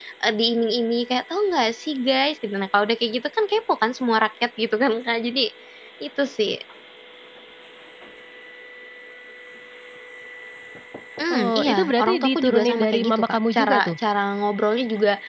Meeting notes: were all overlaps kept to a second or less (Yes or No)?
No